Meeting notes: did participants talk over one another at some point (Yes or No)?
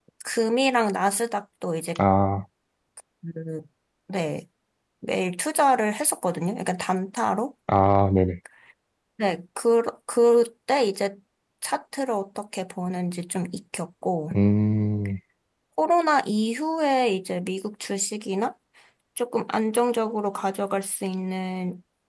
No